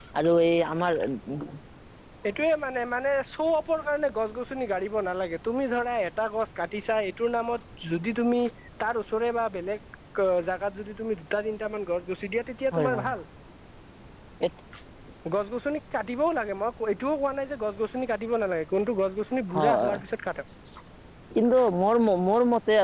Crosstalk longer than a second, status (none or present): none